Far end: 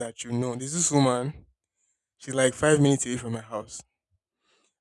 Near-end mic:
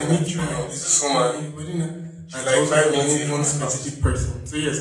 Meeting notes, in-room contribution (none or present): present